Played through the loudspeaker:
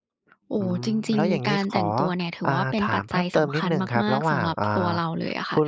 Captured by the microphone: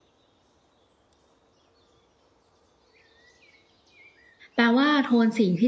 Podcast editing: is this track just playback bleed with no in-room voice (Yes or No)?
No